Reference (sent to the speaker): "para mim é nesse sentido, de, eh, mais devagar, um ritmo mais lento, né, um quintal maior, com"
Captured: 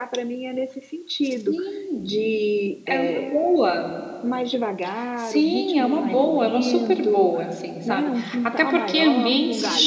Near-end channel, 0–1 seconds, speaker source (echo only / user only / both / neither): echo only